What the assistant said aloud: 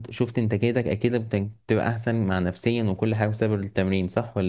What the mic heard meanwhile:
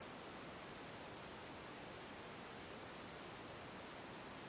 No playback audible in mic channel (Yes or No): Yes